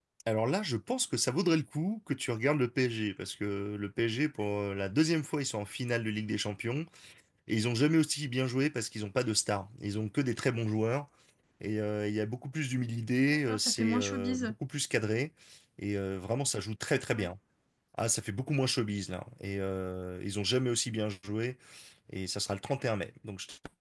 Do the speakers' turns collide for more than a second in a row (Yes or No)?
Yes